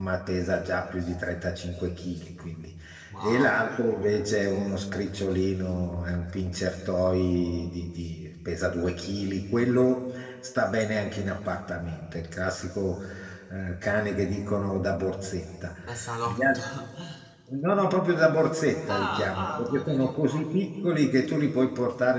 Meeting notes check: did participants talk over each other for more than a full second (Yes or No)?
Yes